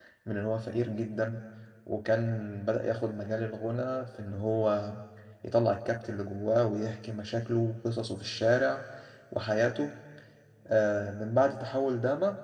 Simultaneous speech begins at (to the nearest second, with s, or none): none